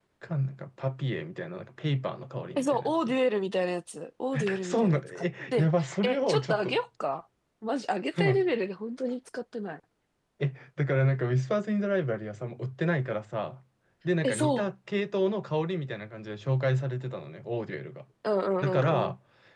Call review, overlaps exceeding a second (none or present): present